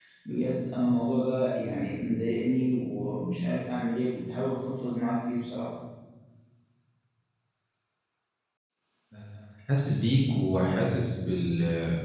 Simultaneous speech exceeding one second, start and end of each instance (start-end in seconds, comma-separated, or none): none